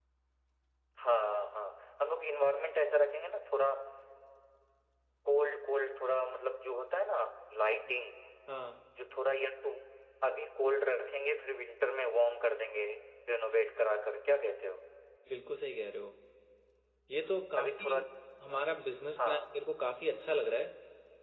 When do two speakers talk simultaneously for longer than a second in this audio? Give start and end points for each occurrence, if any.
none

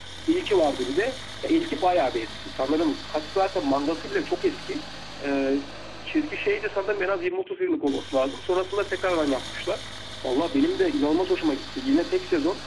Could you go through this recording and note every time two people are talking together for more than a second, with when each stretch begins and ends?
none

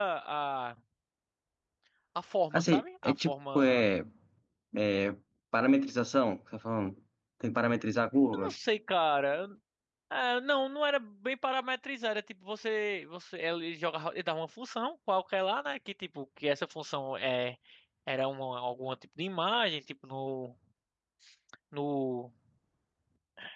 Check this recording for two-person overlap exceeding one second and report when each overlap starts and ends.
2.5-3.8

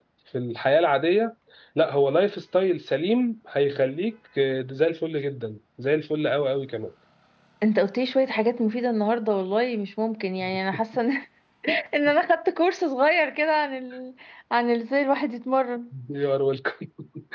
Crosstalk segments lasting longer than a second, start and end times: none

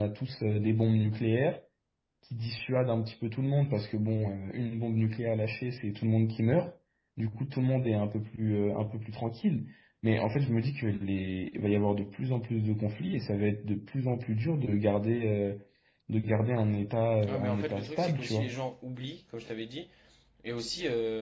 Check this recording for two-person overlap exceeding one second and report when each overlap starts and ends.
17.3-18.6

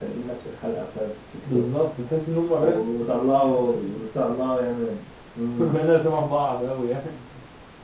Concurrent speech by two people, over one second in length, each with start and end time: 2.6-4.0

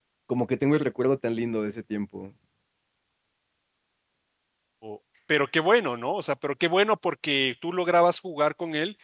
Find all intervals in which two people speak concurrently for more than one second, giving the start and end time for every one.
none

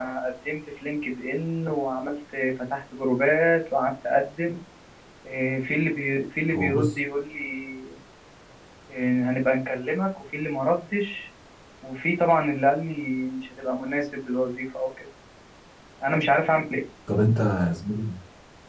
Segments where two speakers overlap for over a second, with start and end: none

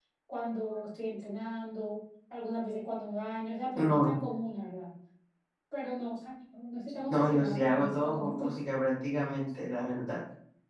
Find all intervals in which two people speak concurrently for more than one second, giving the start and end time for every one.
7.1-8.5

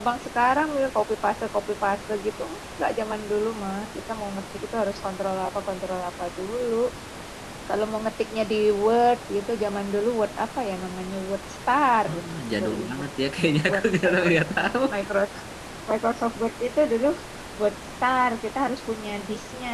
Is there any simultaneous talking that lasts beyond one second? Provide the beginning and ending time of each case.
none

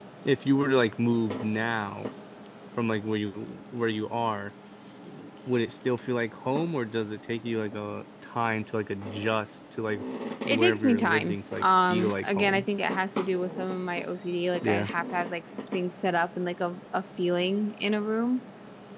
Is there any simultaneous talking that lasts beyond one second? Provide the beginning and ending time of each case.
10.5-12.7

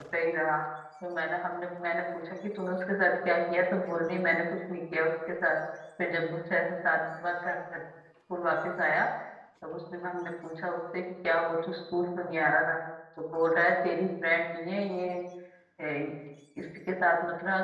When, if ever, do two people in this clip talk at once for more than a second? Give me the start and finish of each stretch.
none

